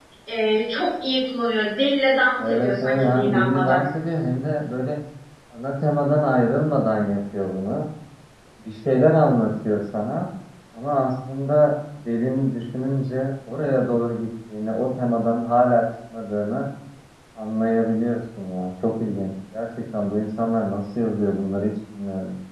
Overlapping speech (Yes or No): Yes